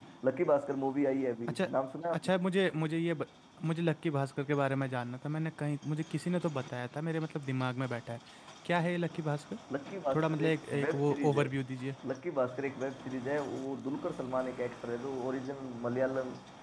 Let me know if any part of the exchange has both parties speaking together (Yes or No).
Yes